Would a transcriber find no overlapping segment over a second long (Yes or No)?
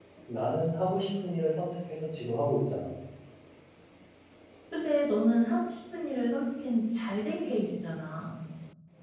Yes